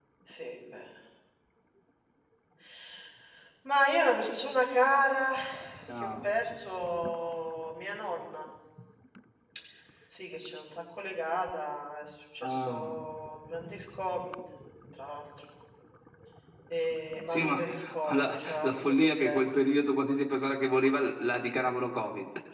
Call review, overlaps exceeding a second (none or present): present